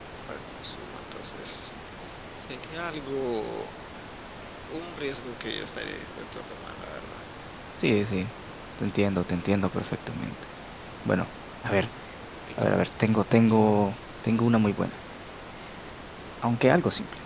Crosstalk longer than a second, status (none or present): none